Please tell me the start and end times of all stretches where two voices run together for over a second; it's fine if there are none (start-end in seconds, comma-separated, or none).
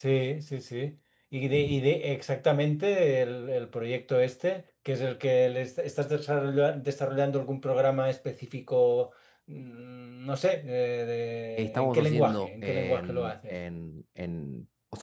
11.6-13.5